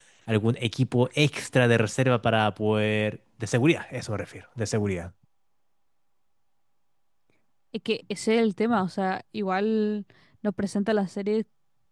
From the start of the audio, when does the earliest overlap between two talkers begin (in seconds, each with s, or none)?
none